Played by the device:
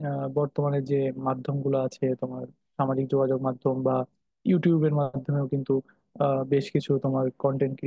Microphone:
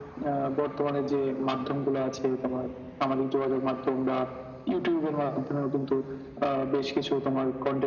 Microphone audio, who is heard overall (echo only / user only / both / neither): echo only